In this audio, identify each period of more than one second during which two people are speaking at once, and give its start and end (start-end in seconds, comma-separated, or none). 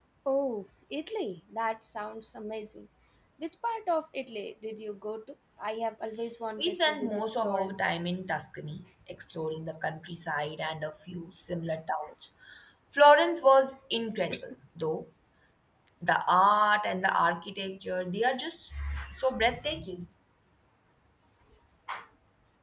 6.6-8.0